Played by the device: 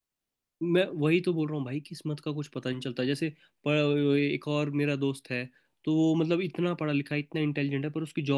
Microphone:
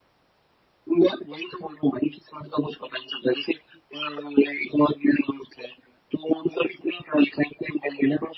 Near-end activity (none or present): none